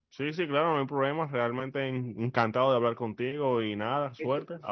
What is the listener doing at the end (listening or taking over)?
taking over